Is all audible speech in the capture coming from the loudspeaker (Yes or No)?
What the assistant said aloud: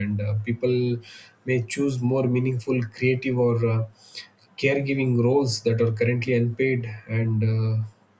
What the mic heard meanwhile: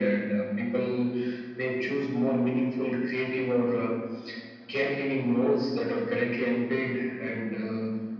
Yes